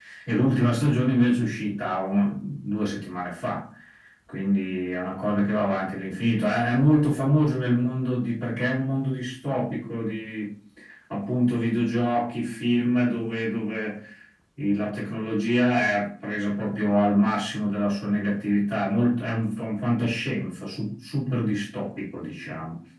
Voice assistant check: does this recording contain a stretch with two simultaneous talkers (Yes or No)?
No